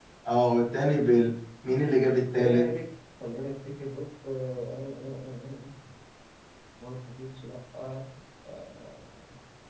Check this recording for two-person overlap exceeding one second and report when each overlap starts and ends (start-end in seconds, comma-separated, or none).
none